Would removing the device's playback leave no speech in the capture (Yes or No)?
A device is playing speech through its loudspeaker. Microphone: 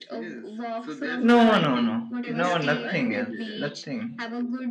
No